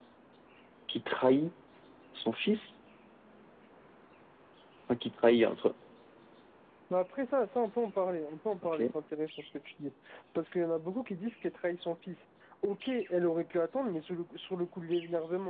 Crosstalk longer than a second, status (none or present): none